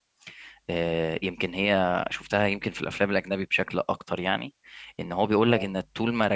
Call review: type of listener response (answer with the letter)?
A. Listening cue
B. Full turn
A